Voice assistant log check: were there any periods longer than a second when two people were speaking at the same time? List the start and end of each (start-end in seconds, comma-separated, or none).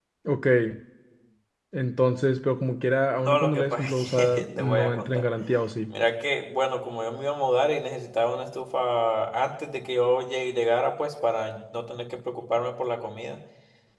3.2-5.2